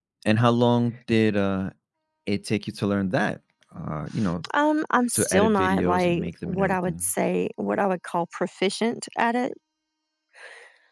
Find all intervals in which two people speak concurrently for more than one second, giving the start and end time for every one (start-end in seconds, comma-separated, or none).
5.1-7.0